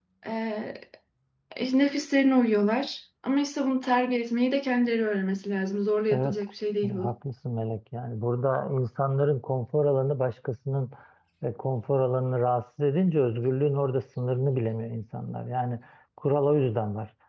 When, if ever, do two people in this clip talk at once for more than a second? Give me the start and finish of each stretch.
none

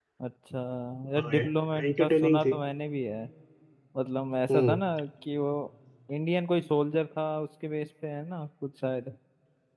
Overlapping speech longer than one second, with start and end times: 1.2-2.5

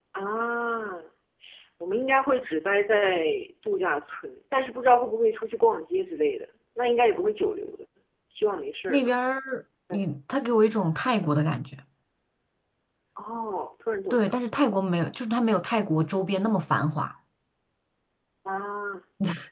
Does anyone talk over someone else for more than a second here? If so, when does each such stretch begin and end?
none

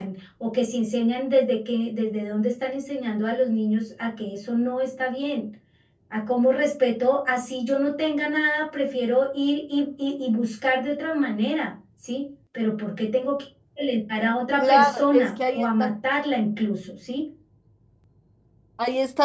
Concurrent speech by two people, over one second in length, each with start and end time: 14.6-15.9

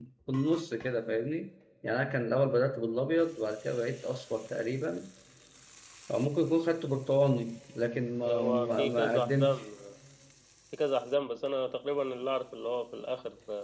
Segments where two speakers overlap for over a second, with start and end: 8.3-9.6

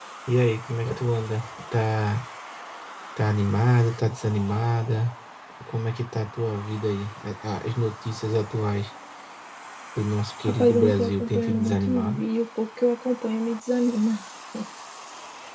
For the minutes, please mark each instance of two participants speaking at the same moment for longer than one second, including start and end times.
10.5-12.2

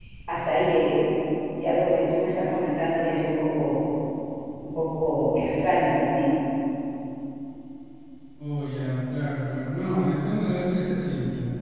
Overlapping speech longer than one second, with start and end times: none

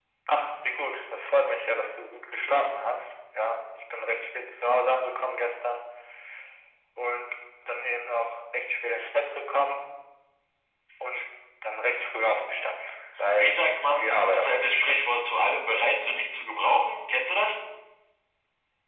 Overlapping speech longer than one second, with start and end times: 13.4-15.0

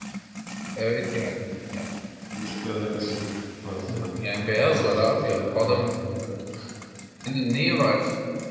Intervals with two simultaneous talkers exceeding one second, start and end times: 4.6-5.9

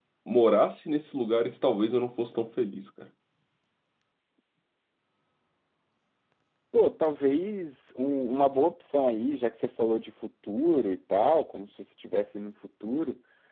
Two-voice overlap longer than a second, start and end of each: none

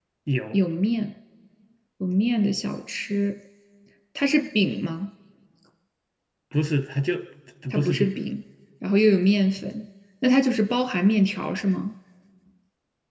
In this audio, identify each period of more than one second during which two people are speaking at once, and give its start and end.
none

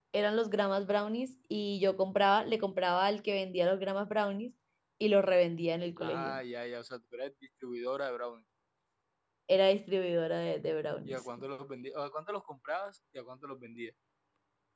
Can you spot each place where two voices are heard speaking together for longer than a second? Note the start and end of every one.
none

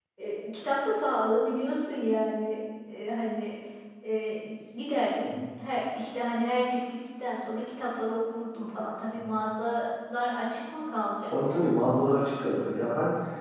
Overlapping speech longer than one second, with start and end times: none

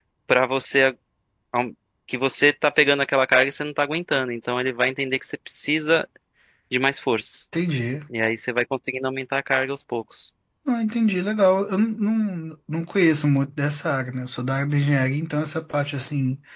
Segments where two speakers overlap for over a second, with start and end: none

